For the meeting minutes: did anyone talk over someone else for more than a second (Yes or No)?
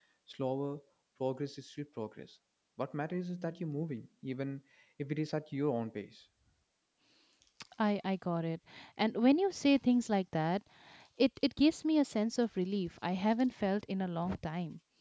No